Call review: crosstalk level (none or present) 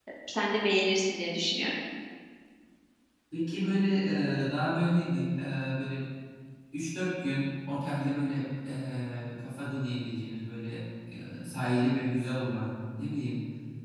none